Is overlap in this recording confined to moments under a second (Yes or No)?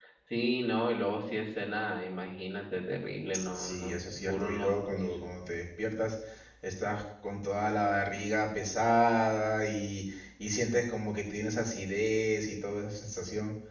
No